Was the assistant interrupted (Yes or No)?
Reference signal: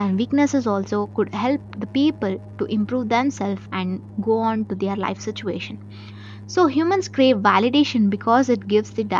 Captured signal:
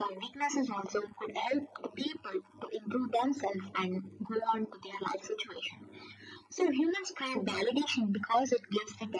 No